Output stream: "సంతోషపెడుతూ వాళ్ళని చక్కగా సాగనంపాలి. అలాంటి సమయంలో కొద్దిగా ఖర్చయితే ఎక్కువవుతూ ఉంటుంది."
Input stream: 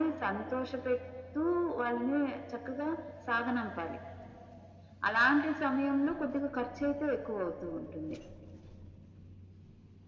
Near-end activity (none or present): none